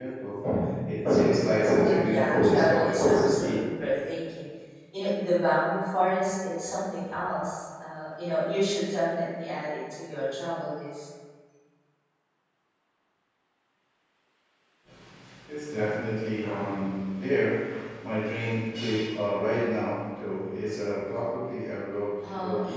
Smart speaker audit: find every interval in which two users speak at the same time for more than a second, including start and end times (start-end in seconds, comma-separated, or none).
1.5-3.6